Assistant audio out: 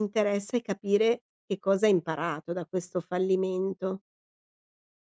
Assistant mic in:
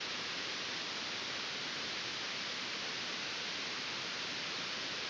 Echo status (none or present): none